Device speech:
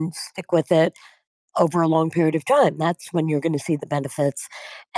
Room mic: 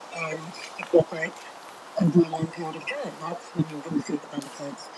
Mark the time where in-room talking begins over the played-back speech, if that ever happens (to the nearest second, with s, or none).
none